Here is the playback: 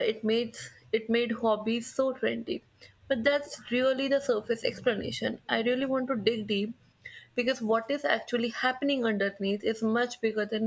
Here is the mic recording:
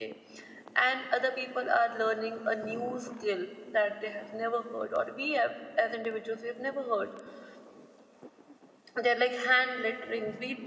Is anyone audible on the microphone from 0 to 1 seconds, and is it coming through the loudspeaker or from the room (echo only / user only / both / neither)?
user only